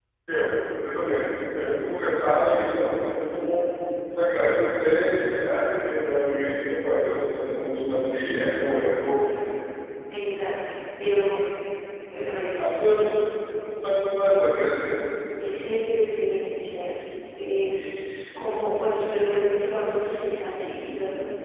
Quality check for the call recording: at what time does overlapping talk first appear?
none

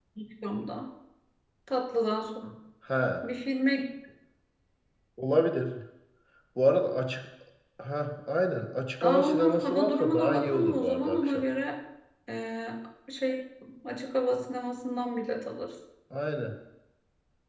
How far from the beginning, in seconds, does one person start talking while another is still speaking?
9.0 s

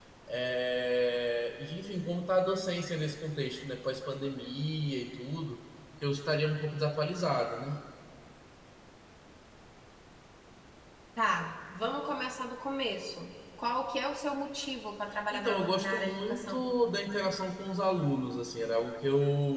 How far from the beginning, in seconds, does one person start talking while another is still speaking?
15.3 s

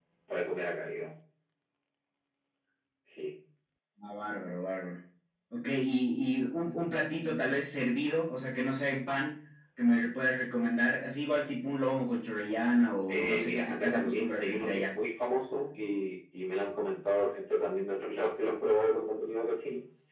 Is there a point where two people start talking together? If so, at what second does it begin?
13.1 s

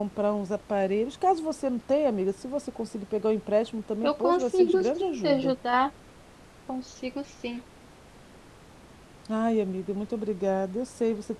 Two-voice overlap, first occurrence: 4.0 s

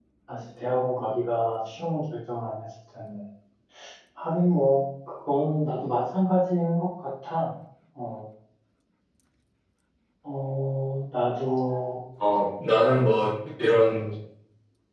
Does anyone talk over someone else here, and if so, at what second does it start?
none

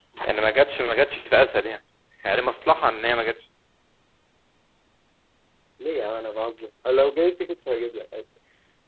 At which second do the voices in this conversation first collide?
none

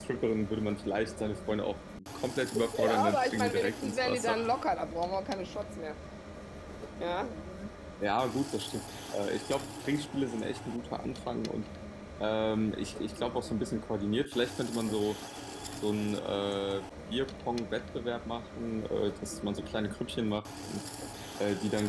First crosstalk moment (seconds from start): 2.7 s

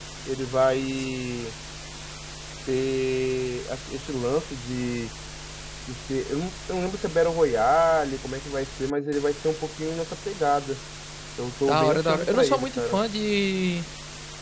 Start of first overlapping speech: 11.7 s

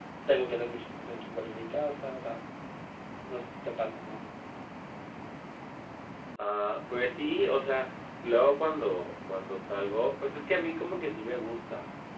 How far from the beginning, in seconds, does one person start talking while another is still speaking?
none

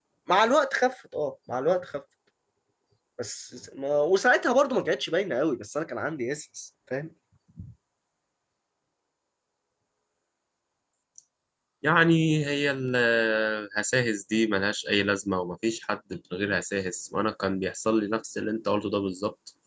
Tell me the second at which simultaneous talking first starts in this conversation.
none

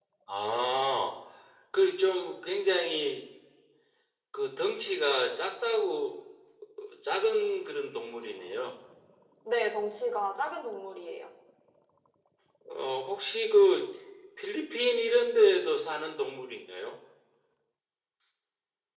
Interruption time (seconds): none

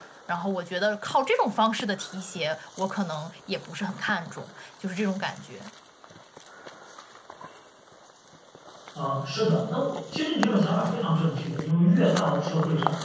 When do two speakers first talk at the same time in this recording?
none

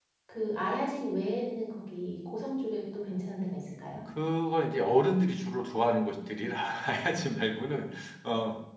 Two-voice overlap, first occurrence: none

